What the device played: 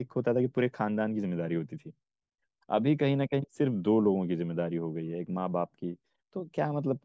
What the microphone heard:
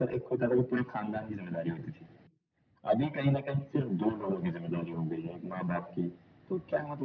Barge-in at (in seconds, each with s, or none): none